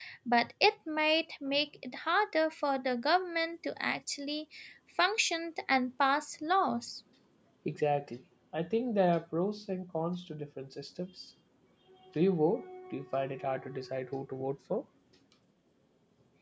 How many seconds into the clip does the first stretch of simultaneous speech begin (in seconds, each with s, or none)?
none